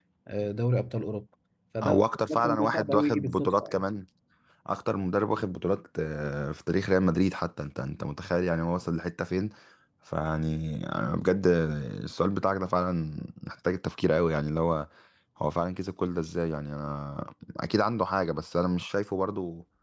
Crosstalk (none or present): present